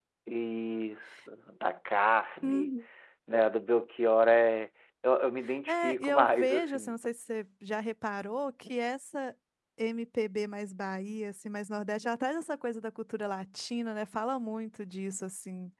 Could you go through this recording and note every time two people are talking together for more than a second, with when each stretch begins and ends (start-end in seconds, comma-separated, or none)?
5.7-7.0